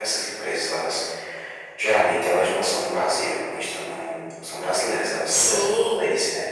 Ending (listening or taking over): listening